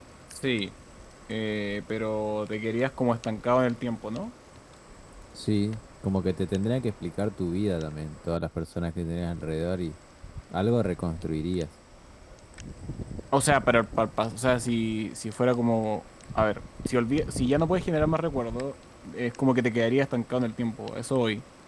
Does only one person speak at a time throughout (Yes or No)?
Yes